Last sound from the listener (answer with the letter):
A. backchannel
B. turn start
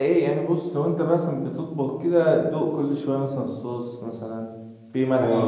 B